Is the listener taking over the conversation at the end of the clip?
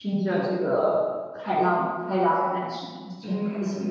Yes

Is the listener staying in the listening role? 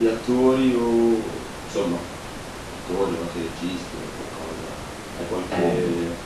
Yes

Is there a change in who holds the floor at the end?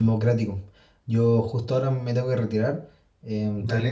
No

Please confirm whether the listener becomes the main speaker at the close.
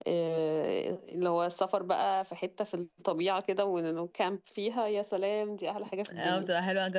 Yes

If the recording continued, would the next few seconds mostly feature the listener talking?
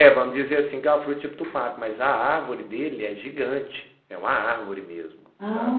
Yes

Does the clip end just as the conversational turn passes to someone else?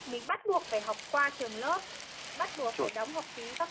No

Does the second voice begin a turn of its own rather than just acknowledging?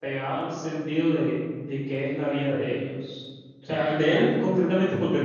No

